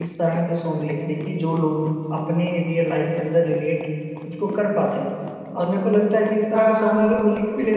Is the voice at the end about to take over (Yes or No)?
No